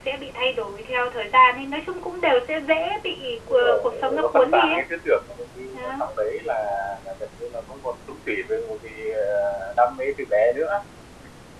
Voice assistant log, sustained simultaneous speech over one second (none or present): present